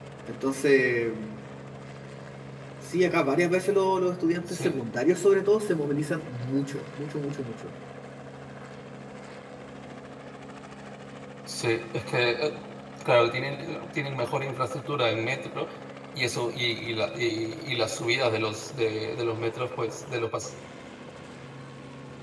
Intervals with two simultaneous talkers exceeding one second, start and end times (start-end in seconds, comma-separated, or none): none